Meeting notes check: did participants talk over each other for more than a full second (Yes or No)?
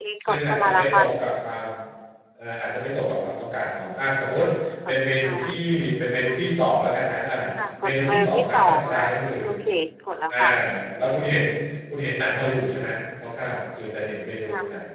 Yes